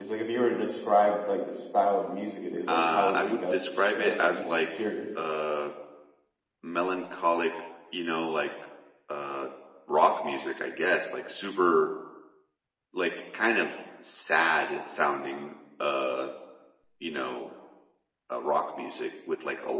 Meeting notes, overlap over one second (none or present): present